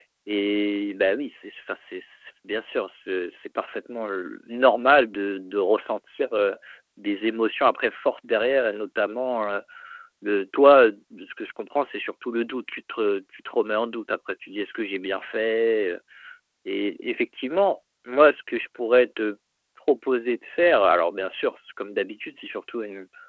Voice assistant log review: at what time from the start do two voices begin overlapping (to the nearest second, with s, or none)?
none